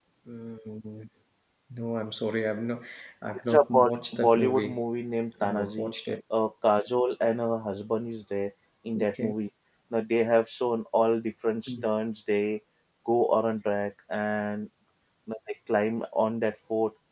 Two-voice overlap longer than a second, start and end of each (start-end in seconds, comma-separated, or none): 3.5-4.8